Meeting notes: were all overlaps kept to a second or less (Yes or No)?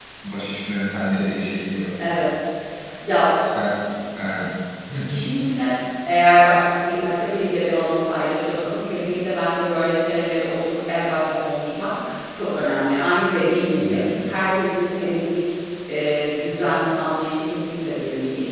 Yes